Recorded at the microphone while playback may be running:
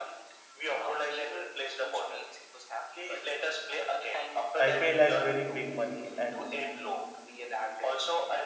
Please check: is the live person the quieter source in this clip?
No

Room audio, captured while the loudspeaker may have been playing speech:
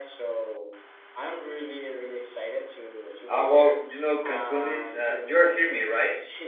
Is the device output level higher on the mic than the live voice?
No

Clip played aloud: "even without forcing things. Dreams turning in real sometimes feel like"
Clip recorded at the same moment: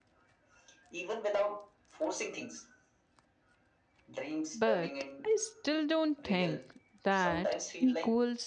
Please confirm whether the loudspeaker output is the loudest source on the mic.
No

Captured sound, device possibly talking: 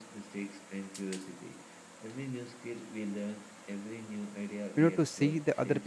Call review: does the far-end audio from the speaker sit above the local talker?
No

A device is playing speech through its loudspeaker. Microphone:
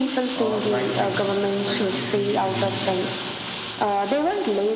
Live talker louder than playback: No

